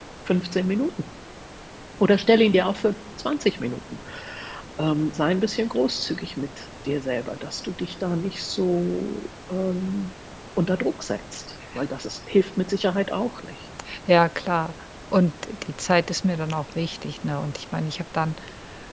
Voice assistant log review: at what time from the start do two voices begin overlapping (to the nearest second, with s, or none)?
none